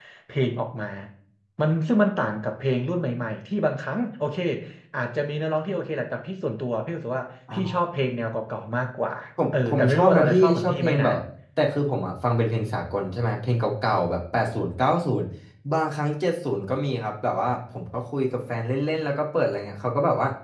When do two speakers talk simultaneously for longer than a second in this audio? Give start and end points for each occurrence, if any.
9.7-11.1

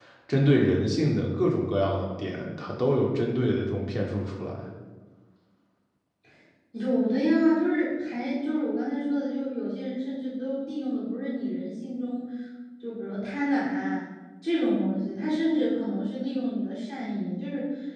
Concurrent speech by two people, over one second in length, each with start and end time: none

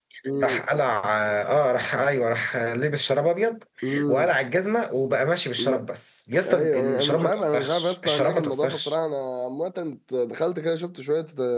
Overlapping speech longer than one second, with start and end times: 6.4-8.9

